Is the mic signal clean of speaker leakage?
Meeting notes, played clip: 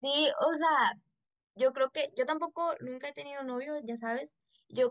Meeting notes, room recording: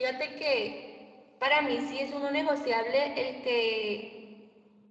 Yes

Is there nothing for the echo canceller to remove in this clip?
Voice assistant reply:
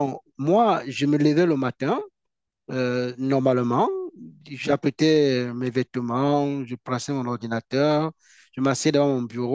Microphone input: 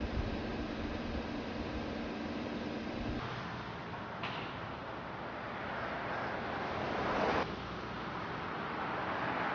Yes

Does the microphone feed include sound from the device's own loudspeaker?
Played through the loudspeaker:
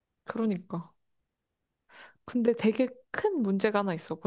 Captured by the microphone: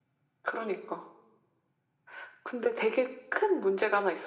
Yes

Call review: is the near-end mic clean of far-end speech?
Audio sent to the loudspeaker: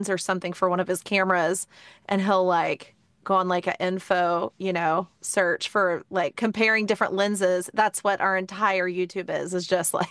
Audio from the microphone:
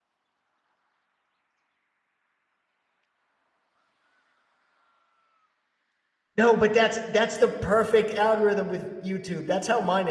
Yes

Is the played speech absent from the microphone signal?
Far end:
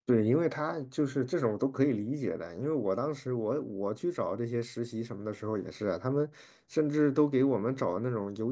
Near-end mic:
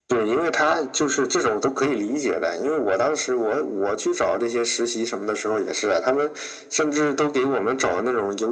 No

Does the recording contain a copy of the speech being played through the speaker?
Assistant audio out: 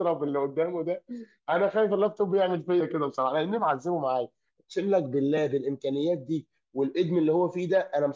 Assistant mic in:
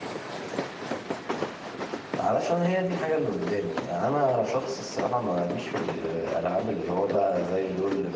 No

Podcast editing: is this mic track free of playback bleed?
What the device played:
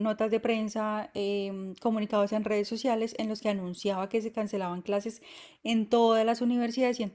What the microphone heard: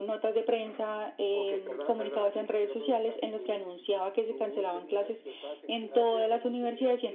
No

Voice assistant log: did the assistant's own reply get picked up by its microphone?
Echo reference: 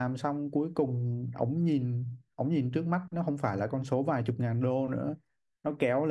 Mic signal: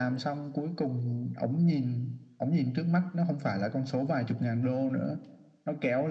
Yes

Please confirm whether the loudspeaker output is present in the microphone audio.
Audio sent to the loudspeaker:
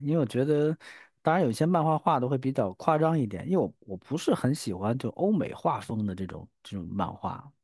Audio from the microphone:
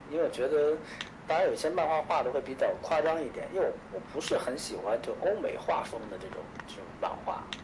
Yes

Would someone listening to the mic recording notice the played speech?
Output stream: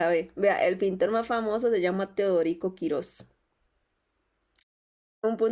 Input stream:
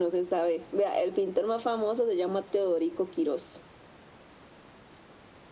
Yes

